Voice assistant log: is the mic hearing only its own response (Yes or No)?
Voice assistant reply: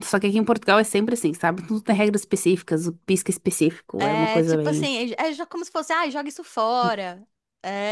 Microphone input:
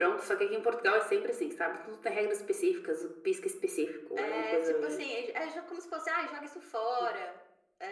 Yes